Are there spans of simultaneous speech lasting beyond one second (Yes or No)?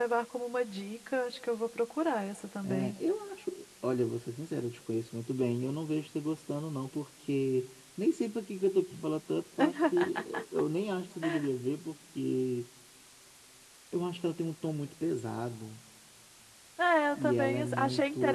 Yes